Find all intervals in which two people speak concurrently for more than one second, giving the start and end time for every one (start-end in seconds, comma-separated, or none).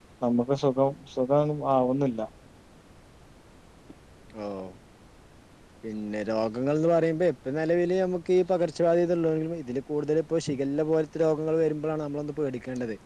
none